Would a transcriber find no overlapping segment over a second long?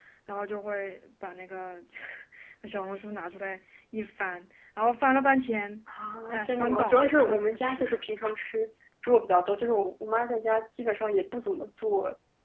No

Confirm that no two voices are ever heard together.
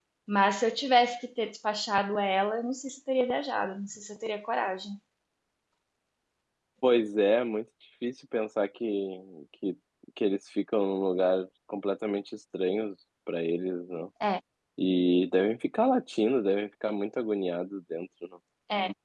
Yes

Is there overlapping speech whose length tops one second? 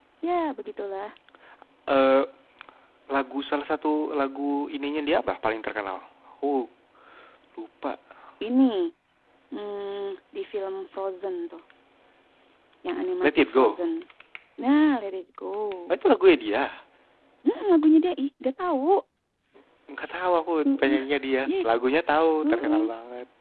No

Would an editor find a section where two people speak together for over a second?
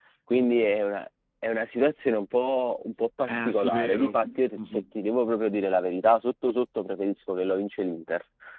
Yes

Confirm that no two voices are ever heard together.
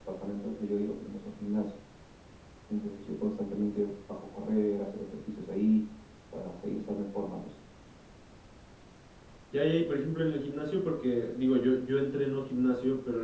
Yes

